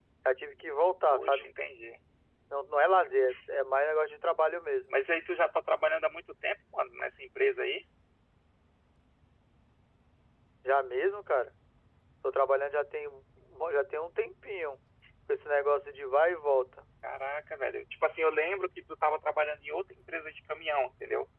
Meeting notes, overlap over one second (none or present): none